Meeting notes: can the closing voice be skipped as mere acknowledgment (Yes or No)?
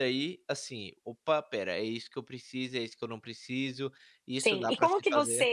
No